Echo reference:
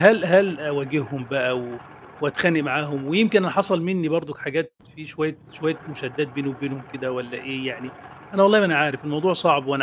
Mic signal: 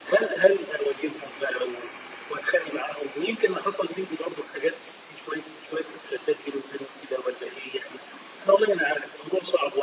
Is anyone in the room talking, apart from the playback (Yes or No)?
No